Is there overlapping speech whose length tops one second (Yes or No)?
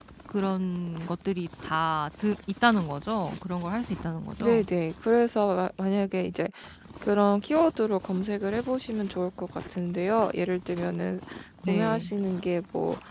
No